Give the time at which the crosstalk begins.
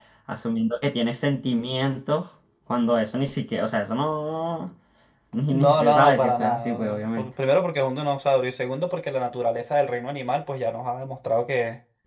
5.5 s

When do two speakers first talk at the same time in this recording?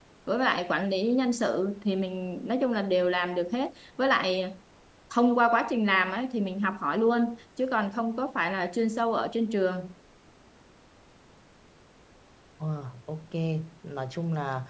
none

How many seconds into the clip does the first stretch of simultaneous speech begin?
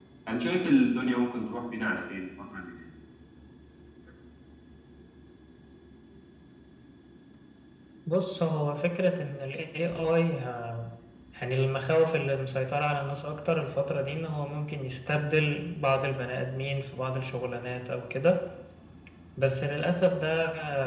none

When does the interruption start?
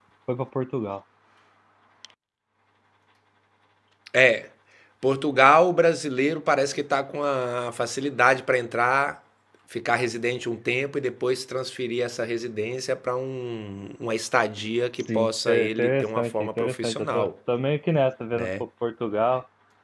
15.1 s

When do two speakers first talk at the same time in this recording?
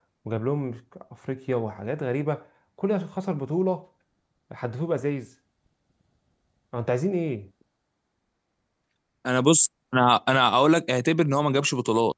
none

